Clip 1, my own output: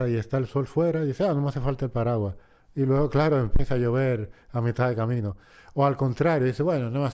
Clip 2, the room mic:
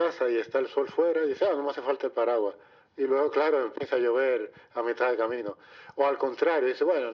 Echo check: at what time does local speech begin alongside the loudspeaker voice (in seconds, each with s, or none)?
none